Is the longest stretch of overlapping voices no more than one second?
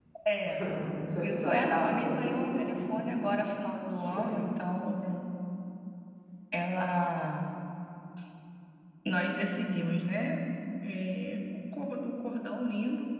No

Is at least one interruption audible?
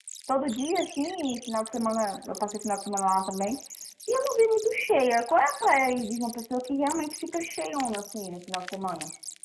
No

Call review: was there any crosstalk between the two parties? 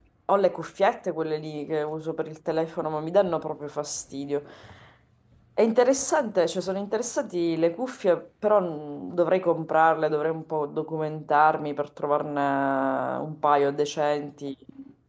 No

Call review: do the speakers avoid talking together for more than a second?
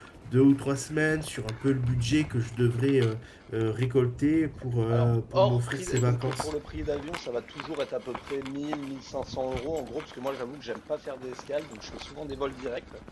No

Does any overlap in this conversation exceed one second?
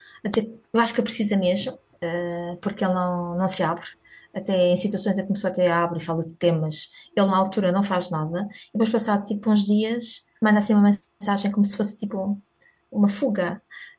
No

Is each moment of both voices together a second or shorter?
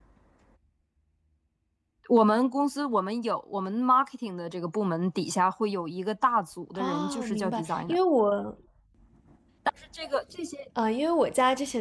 No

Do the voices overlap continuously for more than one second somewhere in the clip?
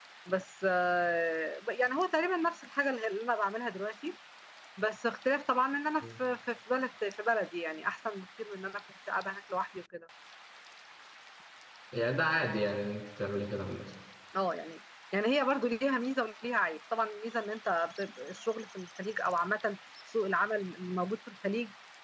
No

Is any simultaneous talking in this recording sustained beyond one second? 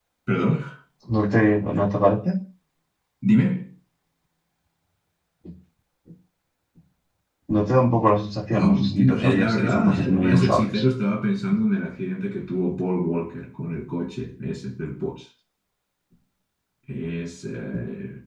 Yes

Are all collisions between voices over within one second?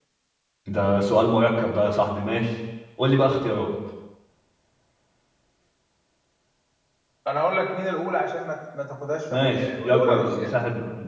No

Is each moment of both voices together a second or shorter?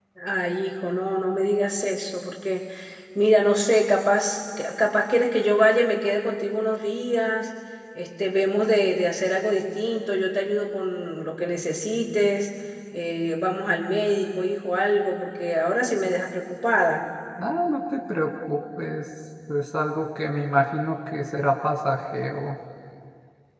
Yes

